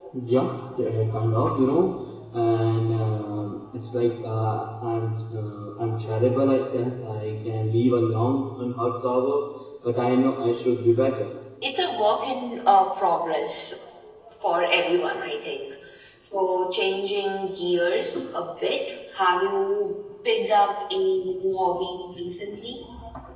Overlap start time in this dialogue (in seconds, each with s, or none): none